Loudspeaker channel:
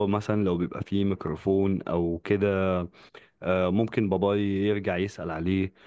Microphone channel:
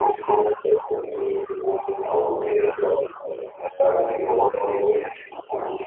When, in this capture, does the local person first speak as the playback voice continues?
none

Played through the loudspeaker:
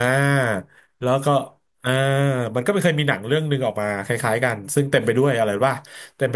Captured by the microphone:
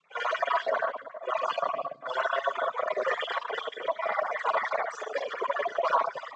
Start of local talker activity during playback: none

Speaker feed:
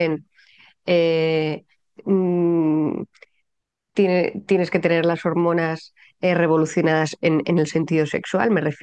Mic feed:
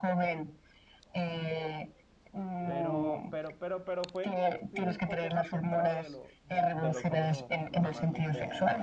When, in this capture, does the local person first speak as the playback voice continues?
2.6 s

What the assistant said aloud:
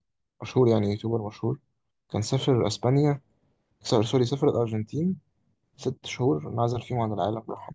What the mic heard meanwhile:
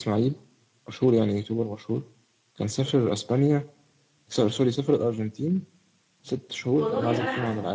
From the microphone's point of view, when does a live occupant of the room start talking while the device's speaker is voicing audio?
6.8 s

